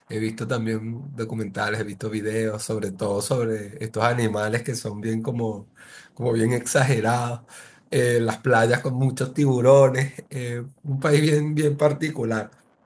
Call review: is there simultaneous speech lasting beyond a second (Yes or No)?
No